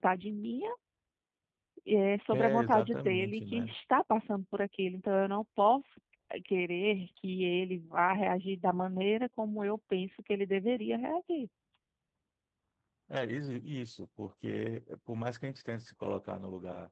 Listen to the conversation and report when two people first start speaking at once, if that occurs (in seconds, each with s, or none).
2.3 s